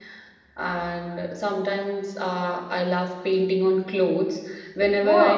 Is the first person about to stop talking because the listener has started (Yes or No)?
No